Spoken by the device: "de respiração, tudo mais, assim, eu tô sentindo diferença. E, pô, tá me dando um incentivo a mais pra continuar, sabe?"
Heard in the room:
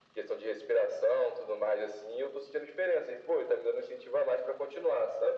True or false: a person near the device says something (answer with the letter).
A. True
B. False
B